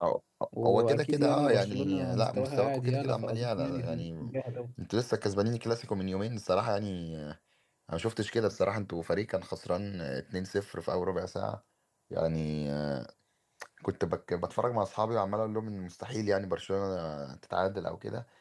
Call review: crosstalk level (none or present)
present